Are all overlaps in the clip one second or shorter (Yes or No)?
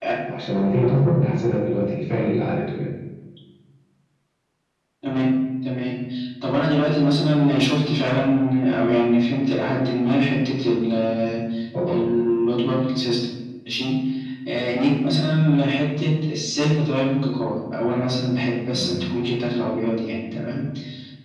Yes